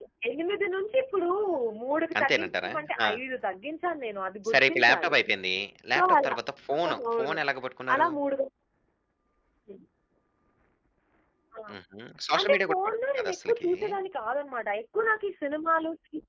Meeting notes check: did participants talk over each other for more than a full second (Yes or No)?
Yes